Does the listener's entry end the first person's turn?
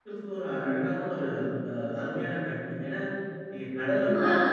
Yes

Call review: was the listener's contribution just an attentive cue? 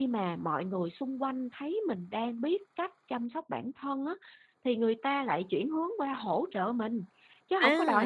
No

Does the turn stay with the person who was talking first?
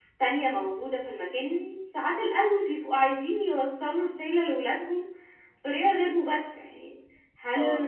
Yes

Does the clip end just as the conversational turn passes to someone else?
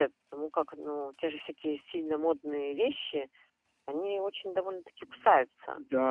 Yes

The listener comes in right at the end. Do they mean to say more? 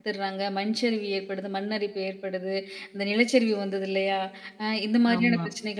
No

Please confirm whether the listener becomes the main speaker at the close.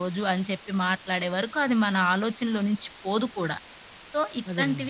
No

